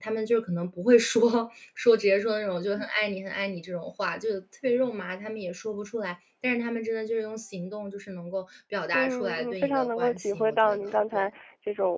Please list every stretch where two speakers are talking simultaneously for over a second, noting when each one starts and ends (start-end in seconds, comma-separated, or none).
8.9-11.2